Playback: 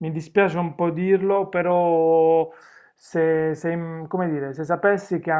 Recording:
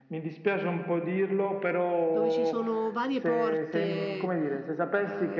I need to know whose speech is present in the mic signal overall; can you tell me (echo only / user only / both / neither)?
both